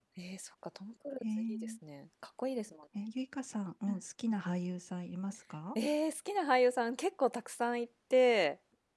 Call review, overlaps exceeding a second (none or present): none